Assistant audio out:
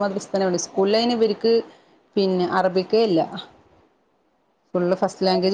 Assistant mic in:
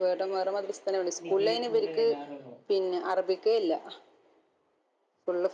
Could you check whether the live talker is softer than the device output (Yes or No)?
Yes